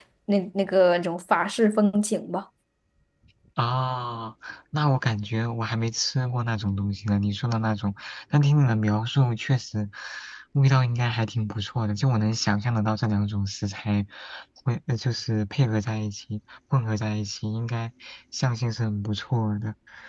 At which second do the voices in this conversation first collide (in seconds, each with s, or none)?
none